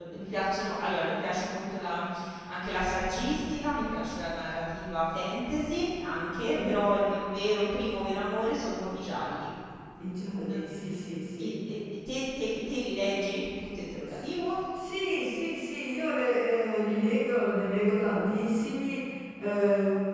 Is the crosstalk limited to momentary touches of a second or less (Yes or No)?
Yes